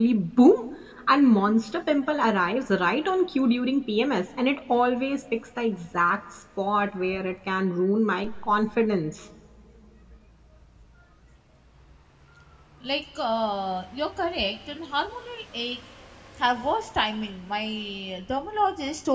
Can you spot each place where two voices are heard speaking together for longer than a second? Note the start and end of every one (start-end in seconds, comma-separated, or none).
none